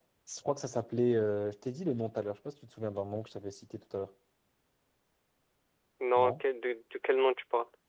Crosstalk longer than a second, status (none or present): none